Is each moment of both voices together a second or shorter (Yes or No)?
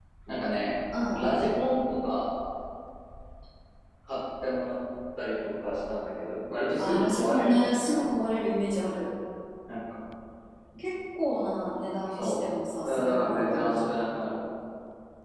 No